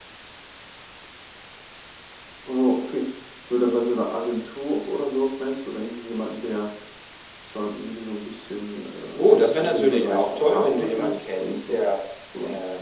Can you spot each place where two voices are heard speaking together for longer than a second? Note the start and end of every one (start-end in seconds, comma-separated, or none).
9.2-11.9